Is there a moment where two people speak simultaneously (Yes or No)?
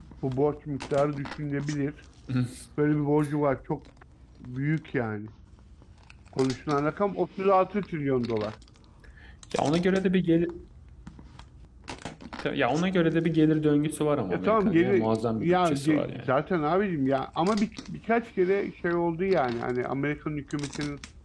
Yes